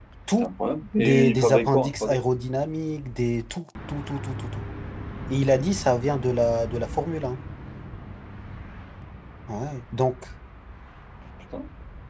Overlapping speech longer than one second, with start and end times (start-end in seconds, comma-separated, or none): 1.0-2.2